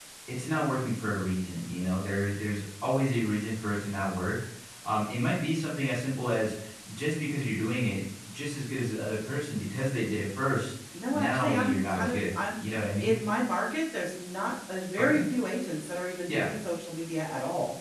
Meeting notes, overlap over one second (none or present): present